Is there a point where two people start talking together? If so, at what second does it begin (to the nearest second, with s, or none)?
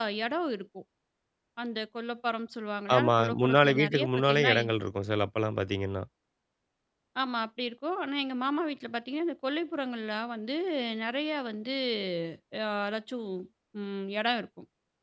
3 s